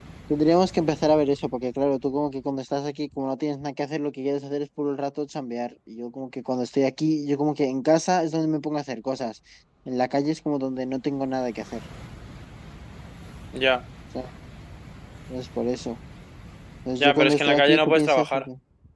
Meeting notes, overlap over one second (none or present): present